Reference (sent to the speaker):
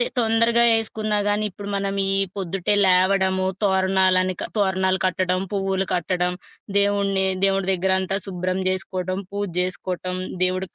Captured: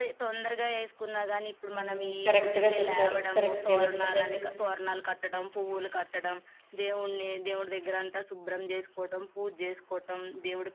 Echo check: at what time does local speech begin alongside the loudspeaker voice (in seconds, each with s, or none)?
1.7 s